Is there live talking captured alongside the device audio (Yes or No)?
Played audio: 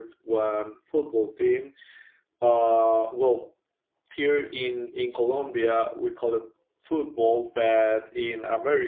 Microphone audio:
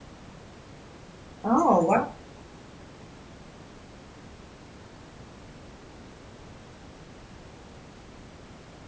Yes